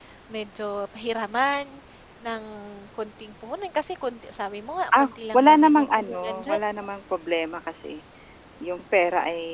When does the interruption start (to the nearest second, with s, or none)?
5 s